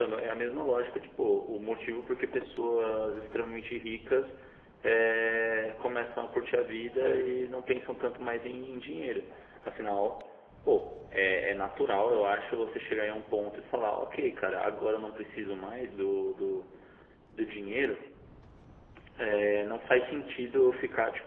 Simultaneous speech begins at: none

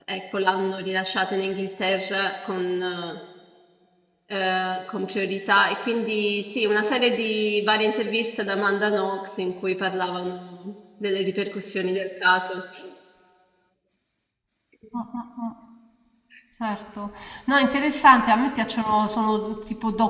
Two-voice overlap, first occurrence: none

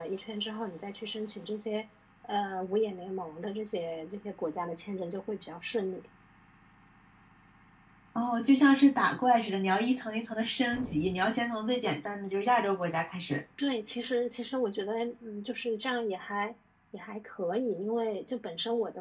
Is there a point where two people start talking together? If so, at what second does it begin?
none

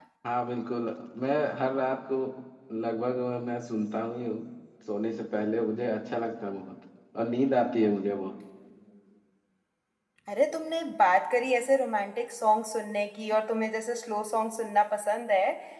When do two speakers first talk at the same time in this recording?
none

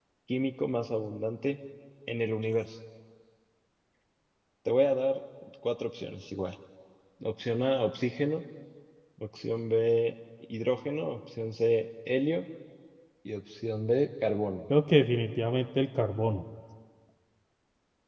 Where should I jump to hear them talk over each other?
none

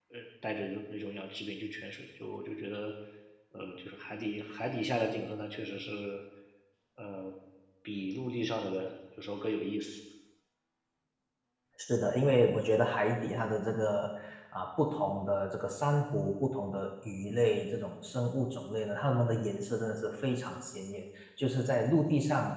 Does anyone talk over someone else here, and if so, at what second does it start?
none

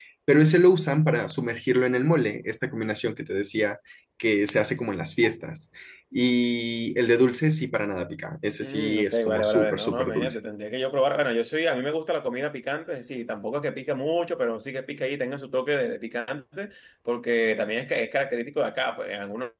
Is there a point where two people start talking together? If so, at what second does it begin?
8.6 s

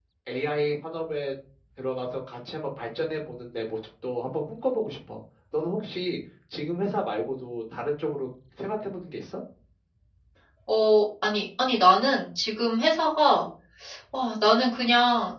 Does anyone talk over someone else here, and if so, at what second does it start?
none

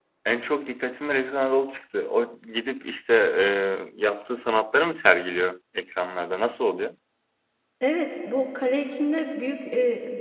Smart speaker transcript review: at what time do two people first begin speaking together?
none

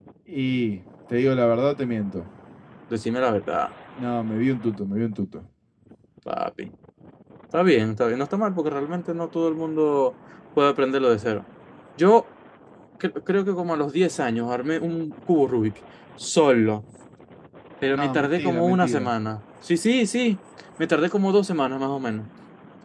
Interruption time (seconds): 17.9 s

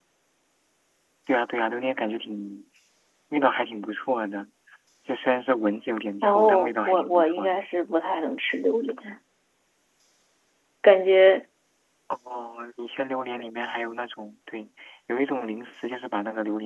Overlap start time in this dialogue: 6.2 s

